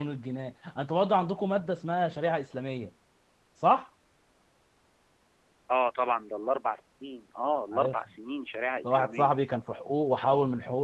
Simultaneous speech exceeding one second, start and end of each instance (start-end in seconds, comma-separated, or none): none